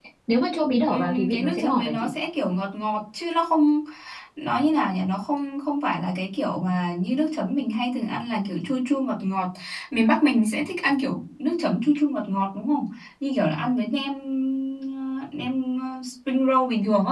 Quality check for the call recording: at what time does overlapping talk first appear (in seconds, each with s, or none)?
0.9 s